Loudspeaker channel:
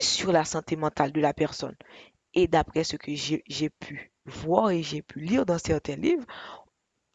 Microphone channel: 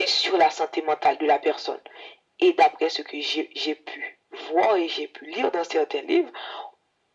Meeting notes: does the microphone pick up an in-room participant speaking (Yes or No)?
No